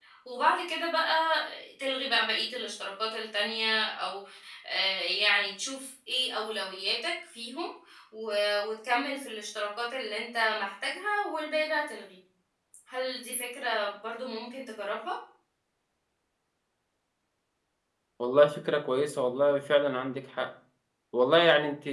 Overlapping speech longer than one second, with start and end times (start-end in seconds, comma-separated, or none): none